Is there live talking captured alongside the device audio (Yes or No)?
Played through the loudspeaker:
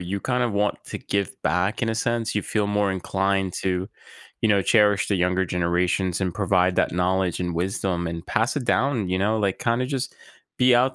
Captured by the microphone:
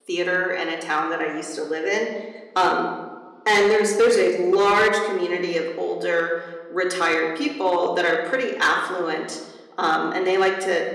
Yes